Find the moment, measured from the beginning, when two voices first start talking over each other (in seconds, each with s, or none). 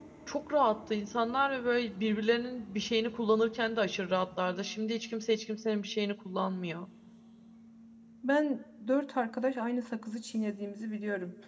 none